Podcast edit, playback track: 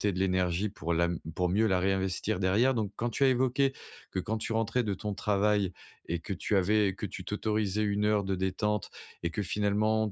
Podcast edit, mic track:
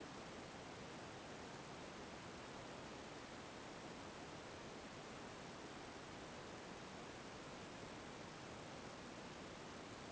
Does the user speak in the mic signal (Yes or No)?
No